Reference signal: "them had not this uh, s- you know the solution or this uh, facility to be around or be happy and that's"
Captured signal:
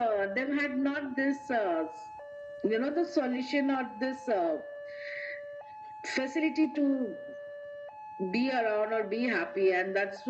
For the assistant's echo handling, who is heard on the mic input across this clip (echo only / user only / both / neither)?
echo only